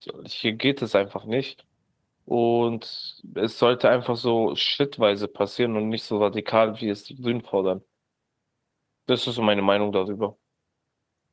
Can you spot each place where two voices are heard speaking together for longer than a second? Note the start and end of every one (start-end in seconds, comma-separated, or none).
none